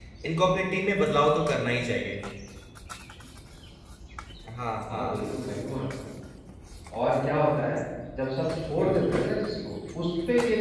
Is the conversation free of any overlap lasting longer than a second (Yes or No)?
Yes